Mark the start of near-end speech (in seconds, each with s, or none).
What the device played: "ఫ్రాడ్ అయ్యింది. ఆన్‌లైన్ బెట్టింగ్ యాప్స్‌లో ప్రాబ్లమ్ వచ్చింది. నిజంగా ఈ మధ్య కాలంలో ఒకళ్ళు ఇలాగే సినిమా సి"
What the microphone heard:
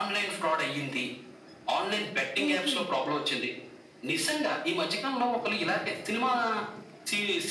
2.4 s